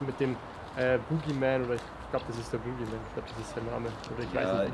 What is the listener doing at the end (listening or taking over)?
taking over